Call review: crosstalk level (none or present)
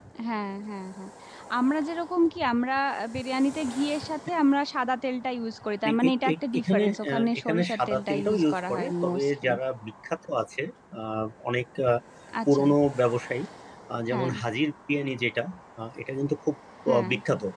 present